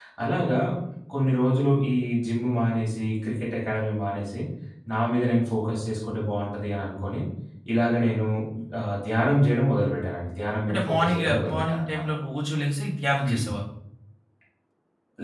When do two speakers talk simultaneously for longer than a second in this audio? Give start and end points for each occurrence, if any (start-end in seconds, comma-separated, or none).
10.7-12.0